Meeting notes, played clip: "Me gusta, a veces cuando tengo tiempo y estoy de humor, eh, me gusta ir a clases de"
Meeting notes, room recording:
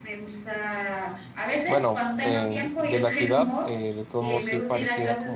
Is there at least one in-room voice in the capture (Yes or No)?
Yes